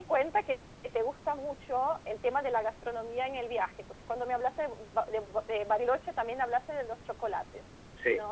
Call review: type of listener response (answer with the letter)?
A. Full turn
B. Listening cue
B